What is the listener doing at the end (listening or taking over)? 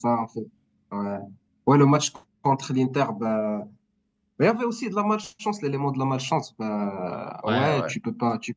listening